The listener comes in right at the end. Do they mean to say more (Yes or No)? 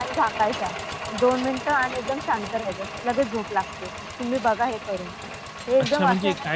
Yes